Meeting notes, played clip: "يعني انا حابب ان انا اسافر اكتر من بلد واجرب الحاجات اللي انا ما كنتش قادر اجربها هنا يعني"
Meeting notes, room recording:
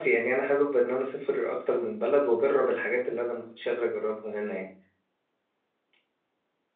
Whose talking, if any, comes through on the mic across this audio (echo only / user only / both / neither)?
echo only